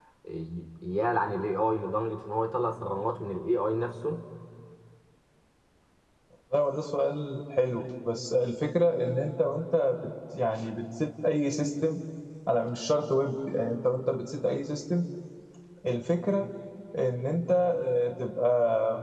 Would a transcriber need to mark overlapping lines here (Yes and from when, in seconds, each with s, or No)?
No